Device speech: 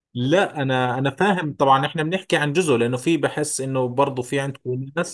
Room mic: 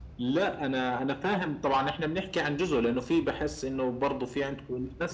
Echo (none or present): present